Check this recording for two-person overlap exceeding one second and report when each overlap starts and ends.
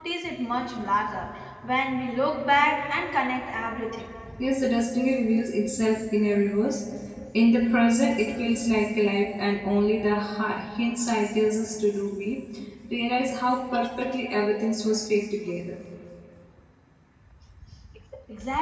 none

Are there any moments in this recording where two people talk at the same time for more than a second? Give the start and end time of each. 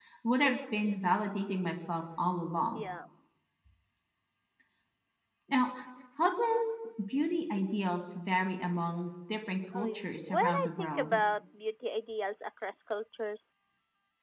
9.7-11.1

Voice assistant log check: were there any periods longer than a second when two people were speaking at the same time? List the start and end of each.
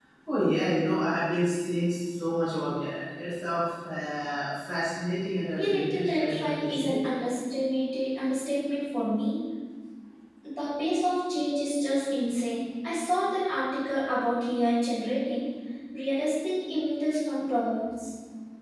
5.5-7.0

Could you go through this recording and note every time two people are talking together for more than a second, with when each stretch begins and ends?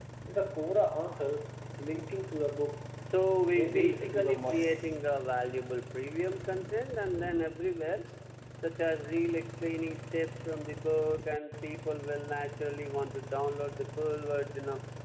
3.6-4.8

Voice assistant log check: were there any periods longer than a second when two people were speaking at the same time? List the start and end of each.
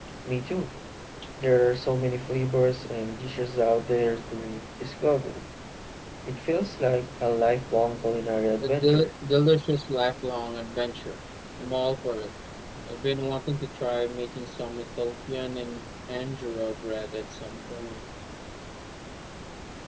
none

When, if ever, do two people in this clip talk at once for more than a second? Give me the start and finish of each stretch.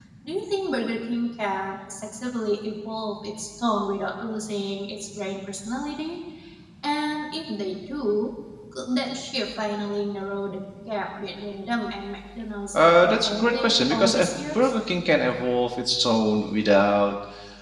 12.7-14.8

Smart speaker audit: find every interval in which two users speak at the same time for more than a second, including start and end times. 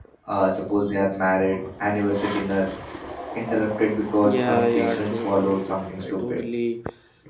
4.2-6.4

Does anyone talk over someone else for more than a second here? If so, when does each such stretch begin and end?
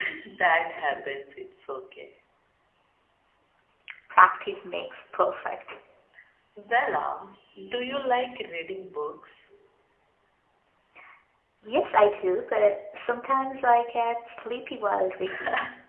none

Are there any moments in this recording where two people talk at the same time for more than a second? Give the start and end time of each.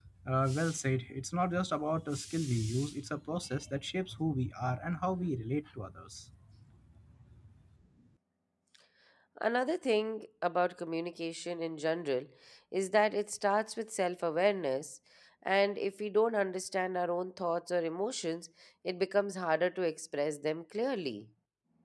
none

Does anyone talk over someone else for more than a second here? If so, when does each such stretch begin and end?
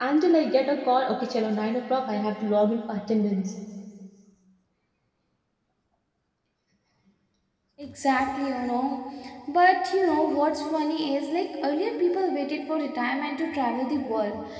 none

